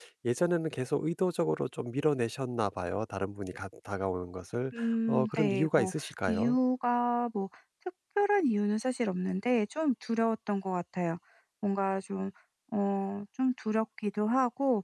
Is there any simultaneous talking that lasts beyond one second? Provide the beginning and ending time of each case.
4.7-6.6

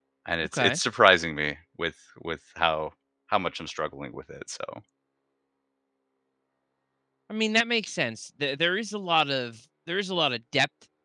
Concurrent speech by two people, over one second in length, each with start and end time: none

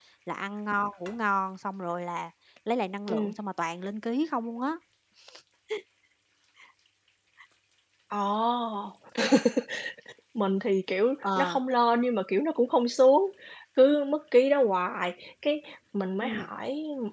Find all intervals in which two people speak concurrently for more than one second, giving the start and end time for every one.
none

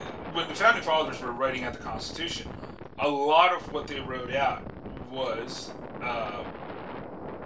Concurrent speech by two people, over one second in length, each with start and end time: none

